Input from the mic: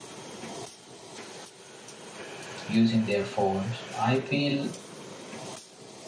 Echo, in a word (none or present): none